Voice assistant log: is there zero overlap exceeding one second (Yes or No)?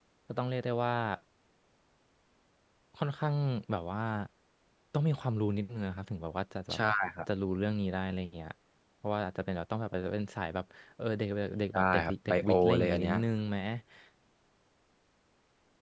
No